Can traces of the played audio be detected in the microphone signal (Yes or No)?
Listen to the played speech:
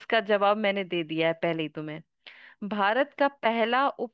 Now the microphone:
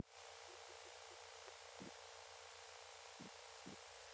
No